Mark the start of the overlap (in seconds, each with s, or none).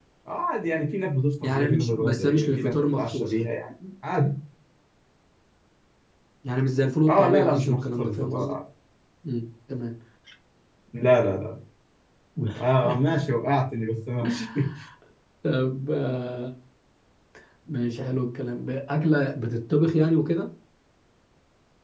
1.4 s